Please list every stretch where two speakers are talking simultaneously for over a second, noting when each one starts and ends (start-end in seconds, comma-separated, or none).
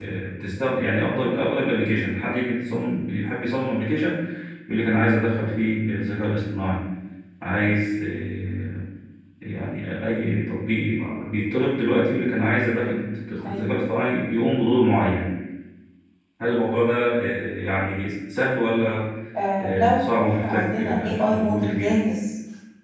19.6-22.0